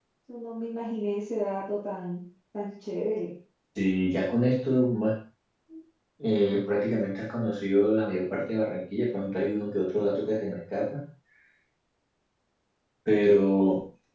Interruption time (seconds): none

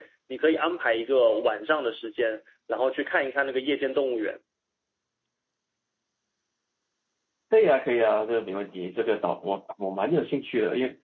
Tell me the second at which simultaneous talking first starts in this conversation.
none

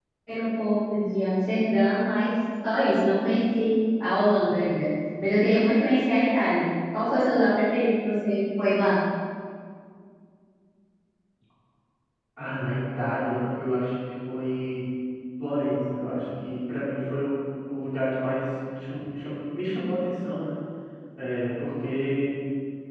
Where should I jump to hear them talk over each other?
none

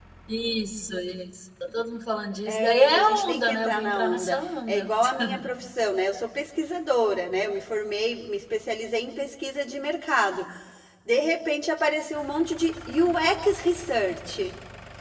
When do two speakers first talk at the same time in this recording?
2.5 s

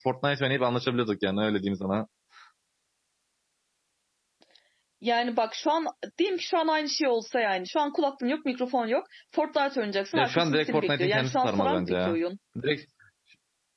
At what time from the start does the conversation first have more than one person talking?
10.1 s

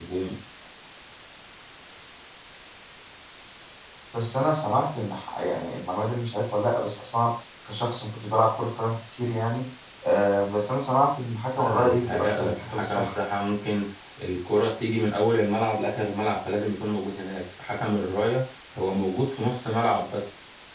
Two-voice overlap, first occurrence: 11.6 s

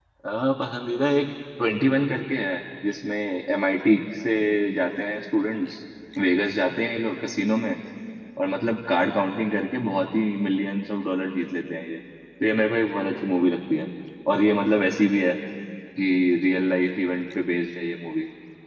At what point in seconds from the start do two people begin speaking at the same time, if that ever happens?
none

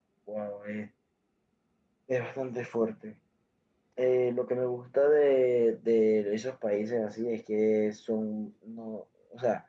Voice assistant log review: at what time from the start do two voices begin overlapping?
none

